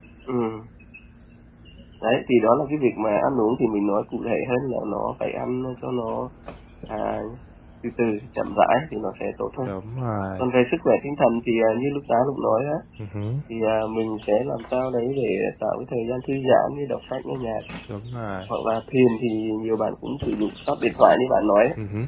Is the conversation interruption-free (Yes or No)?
Yes